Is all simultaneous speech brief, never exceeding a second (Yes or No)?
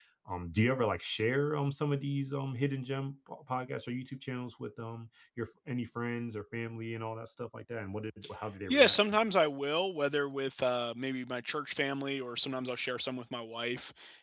Yes